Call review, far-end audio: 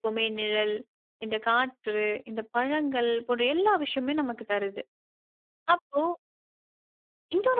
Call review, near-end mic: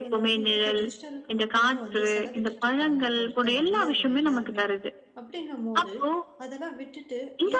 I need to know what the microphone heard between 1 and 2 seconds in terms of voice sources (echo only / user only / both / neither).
both